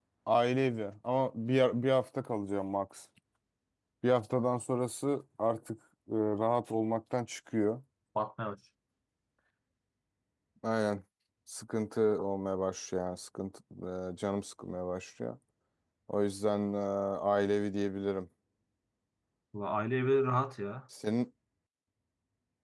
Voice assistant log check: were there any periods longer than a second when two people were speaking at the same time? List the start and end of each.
none

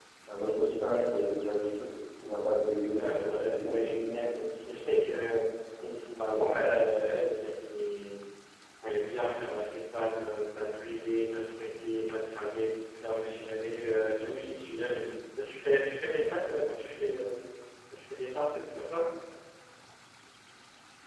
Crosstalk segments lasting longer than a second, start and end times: 3.0-4.2

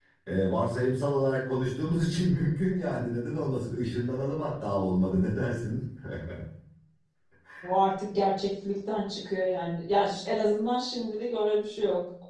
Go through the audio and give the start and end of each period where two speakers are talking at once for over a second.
none

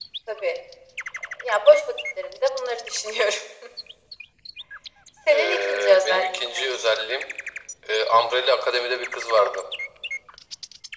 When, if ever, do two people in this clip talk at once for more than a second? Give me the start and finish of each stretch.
5.3-6.7

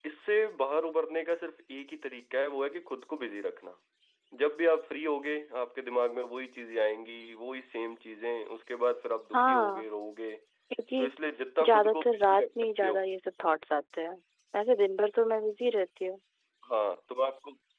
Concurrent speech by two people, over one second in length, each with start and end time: 11.6-13.0

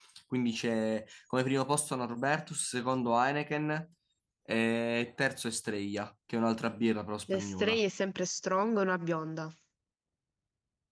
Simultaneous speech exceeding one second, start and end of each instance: none

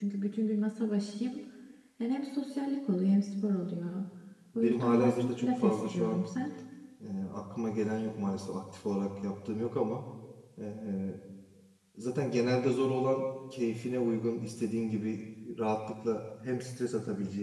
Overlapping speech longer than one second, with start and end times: 4.5-6.2

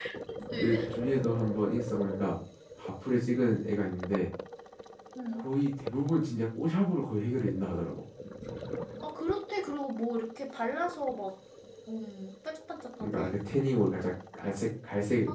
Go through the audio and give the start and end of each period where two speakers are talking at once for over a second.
none

